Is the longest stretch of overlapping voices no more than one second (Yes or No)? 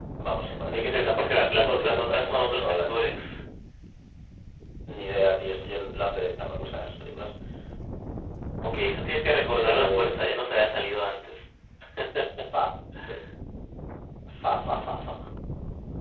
No